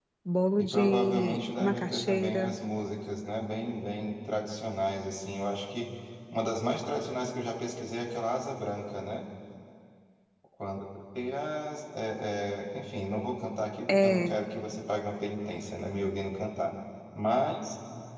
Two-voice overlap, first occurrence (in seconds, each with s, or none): 0.6 s